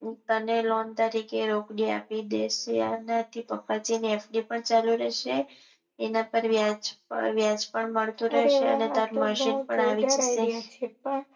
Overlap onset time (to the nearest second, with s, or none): 8 s